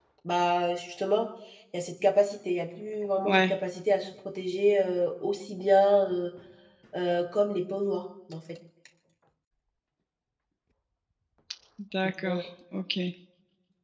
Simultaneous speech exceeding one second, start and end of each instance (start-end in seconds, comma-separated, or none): none